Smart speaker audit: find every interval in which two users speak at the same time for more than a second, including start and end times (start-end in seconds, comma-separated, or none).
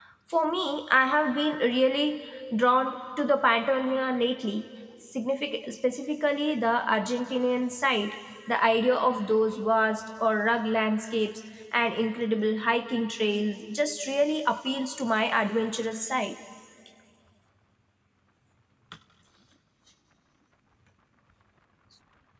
none